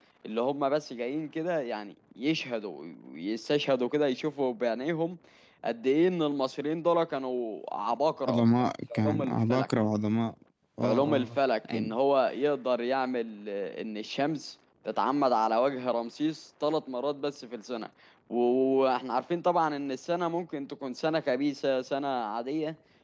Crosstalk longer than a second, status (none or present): present